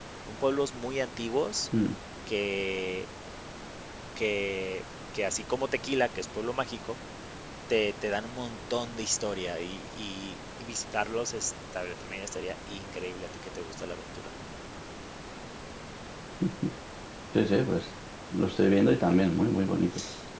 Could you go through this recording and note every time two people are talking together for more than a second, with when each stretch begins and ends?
none

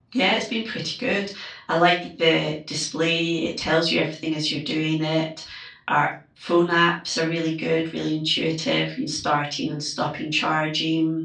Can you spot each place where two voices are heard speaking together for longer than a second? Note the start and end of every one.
none

